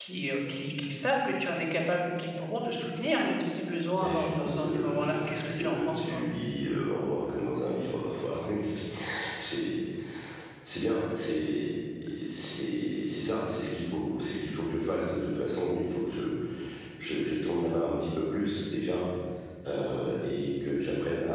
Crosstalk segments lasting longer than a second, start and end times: 4.0-6.2

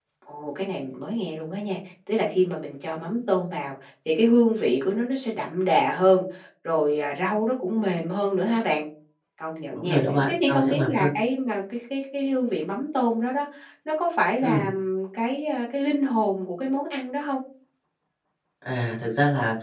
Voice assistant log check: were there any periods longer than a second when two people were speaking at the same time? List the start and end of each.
9.8-11.1

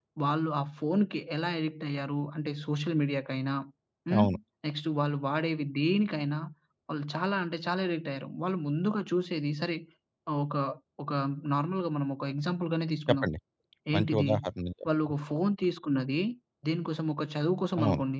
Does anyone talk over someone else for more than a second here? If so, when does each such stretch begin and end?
none

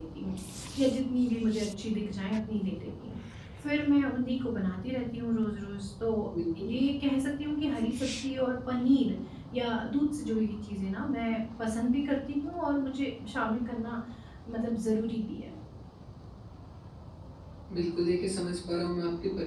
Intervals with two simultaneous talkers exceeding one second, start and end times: none

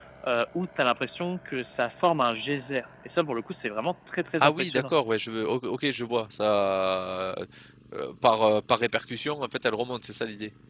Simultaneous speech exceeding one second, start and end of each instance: none

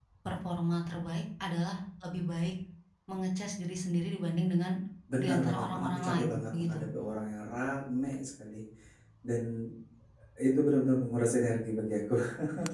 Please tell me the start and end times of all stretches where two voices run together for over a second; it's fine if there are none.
5.2-6.8

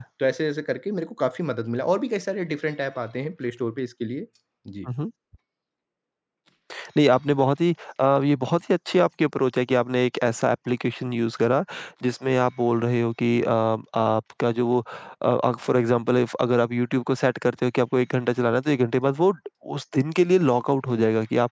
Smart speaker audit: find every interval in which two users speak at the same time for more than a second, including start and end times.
none

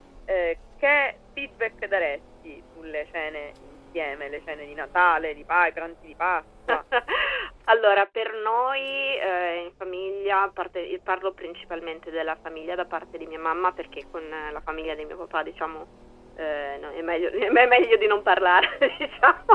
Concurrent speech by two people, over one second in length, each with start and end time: none

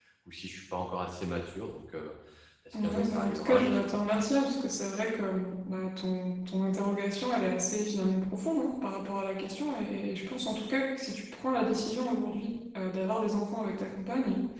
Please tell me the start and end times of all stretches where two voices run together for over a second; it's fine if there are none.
2.7-4.3

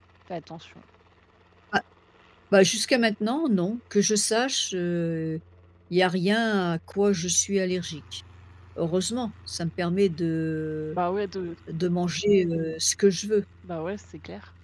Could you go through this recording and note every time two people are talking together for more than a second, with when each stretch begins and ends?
none

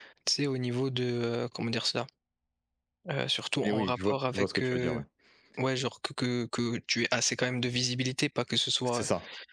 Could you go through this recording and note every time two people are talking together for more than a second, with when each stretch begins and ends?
3.6-5.0

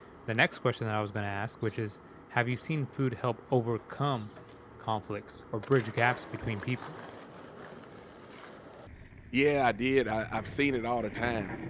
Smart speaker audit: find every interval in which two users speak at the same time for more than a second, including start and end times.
none

